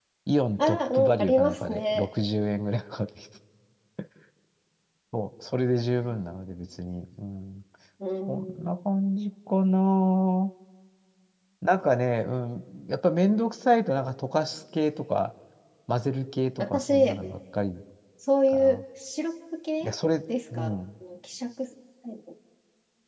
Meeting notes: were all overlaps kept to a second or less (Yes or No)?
No